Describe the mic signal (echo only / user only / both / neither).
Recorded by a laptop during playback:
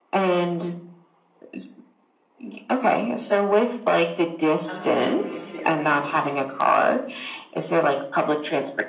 both